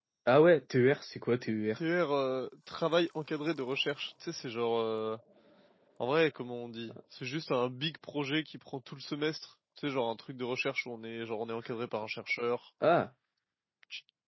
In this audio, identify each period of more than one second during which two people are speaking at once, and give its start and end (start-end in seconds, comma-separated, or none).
none